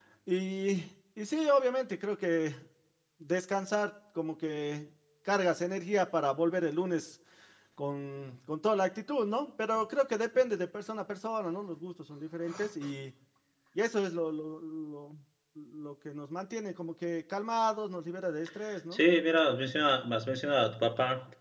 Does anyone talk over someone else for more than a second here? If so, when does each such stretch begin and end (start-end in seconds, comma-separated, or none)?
none